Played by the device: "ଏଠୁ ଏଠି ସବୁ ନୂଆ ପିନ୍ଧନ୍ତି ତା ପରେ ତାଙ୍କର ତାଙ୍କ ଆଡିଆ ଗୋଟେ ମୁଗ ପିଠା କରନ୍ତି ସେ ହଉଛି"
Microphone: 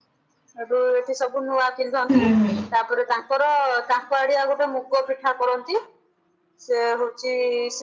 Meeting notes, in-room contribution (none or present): present